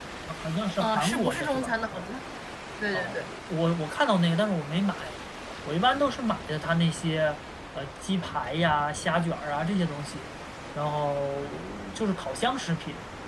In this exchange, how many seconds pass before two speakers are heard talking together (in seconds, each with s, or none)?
0.8 s